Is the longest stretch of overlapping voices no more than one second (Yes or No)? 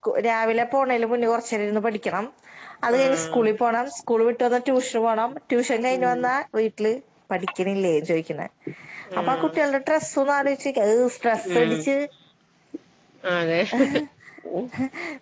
Yes